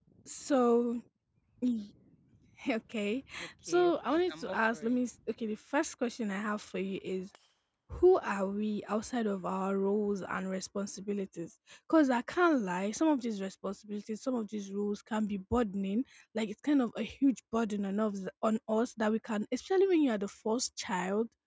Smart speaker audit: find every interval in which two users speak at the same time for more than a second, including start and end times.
3.7-5.0

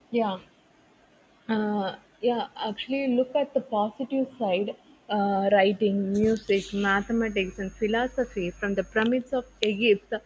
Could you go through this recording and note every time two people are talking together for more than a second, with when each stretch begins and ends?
none

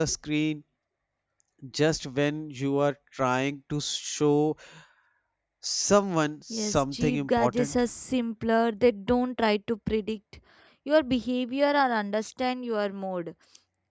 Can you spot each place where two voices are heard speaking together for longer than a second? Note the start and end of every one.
6.5-7.8

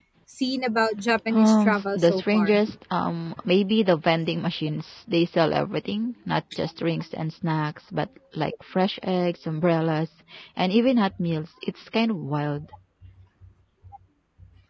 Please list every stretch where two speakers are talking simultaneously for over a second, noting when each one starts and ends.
1.3-2.6

